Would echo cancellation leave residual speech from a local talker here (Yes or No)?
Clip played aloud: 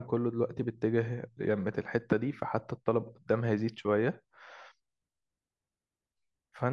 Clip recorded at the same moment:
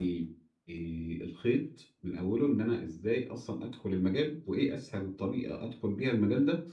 Yes